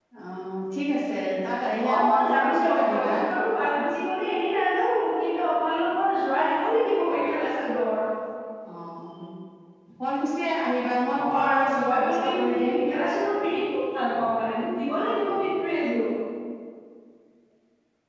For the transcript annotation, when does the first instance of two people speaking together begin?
1.9 s

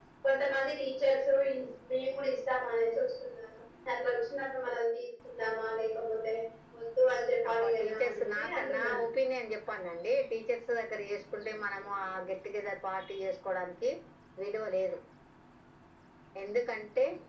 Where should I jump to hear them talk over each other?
7.5 s

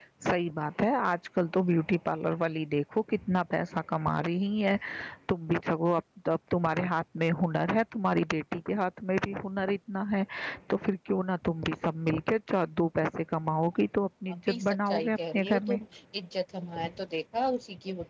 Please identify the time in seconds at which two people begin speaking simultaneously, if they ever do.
14.5 s

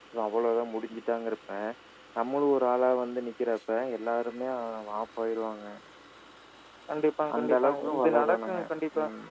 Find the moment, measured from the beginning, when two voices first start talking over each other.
7.4 s

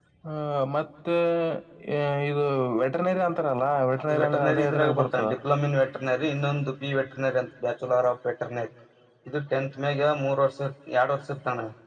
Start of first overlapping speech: 4.0 s

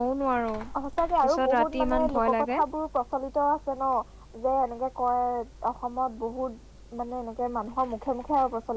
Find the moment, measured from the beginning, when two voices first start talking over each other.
1.2 s

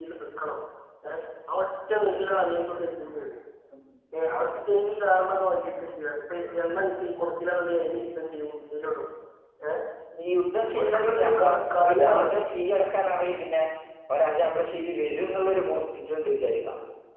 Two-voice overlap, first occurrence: 10.8 s

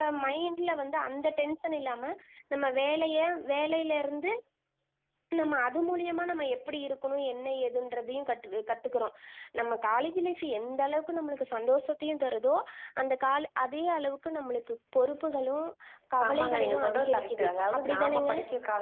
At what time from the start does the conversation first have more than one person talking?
16.2 s

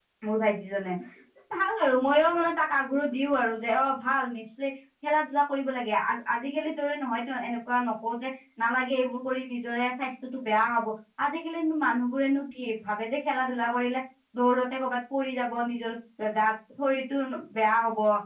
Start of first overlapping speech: none

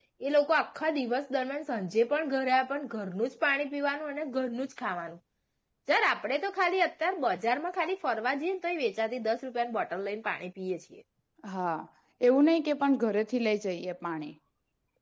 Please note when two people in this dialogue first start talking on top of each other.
none

